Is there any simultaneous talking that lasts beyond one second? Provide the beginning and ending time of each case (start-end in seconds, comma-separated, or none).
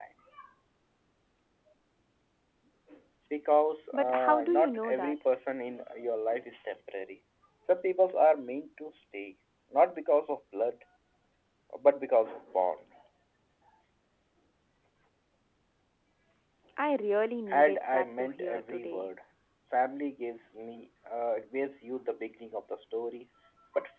3.9-5.1, 17.5-19.1